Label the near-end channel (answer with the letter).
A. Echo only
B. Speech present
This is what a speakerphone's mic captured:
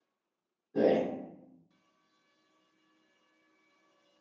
B